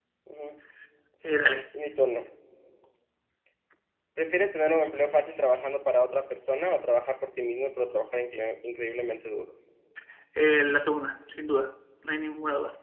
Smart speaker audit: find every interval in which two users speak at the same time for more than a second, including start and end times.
none

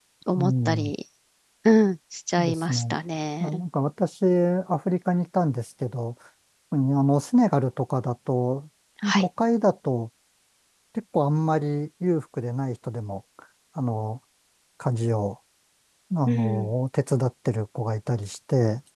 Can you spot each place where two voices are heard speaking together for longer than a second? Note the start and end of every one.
none

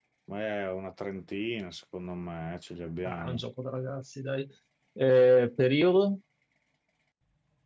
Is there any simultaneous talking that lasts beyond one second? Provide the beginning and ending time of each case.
none

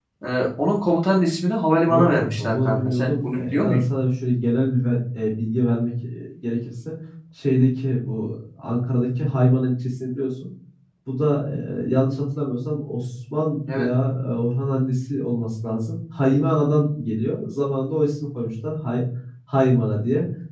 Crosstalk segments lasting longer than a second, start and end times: 1.9-3.8

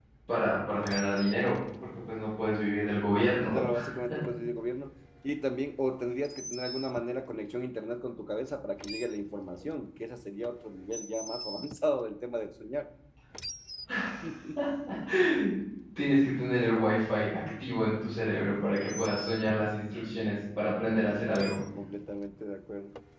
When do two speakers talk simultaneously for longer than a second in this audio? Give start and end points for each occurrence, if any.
none

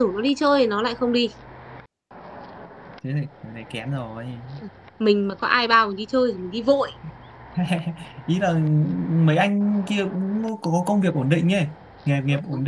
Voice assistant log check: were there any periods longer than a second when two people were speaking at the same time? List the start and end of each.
none

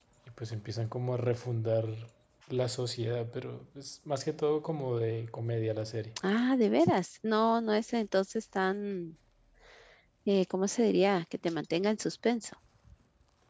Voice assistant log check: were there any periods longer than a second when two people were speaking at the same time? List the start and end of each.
none

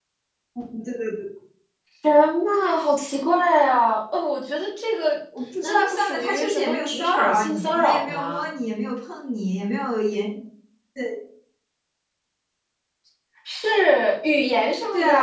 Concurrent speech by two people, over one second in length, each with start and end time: 5.6-8.4

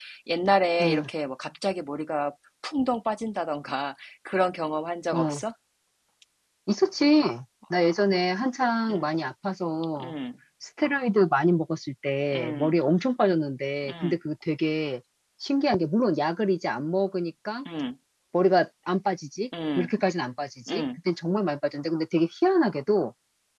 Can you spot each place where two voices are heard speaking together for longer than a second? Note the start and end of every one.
none

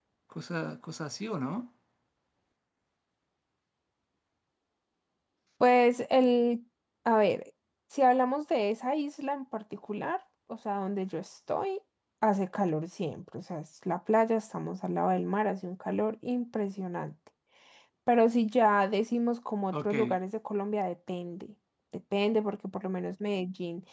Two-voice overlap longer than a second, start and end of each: none

